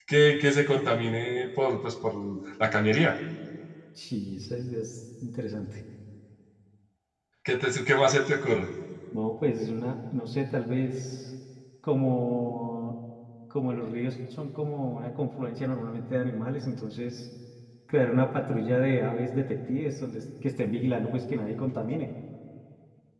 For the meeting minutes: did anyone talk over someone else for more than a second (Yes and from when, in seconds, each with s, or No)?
No